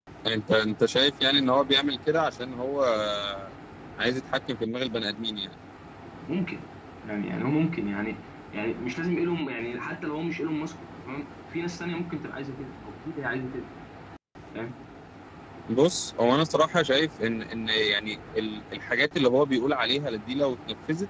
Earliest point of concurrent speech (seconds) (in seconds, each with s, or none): none